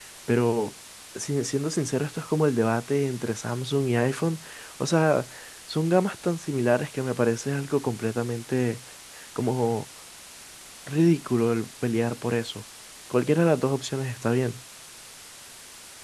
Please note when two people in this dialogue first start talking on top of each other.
none

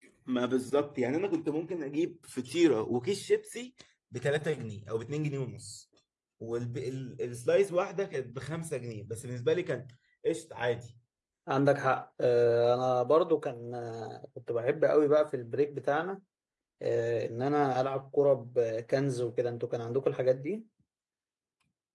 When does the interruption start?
none

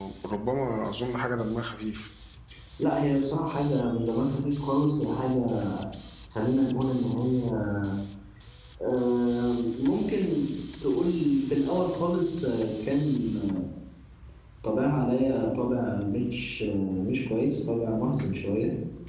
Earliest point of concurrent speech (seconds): none

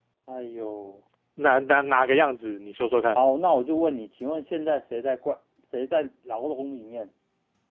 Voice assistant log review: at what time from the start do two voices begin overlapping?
none

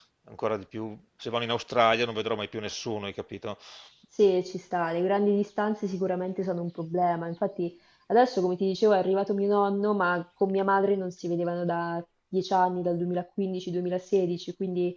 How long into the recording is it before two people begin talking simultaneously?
none

